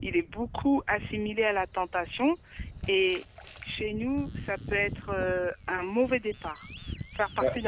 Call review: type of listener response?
listening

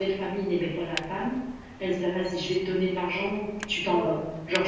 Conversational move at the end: listening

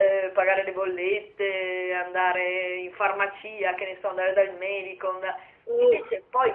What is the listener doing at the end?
listening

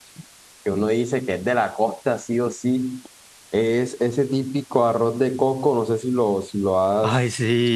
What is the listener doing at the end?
listening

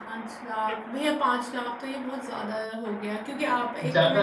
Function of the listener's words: listening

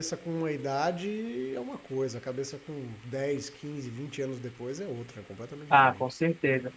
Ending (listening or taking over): taking over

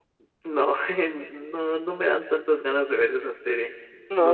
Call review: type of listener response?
taking over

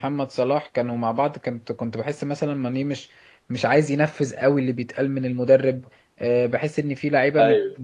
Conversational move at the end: listening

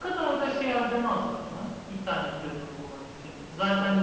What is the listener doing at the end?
listening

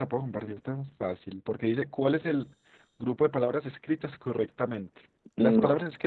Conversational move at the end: listening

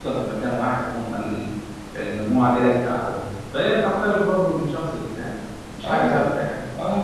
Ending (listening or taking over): taking over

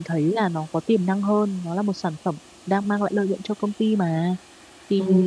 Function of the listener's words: listening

